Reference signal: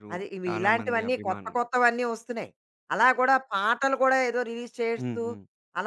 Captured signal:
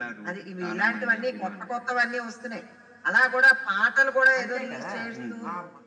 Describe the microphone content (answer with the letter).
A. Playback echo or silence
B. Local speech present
B